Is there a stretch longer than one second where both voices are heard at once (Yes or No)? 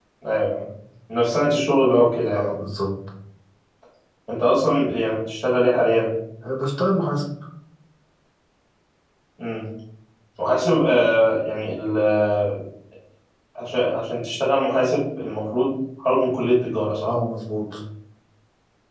No